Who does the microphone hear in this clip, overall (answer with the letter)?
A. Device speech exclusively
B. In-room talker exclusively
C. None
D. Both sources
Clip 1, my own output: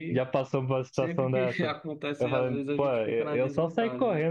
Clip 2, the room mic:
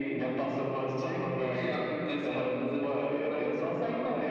A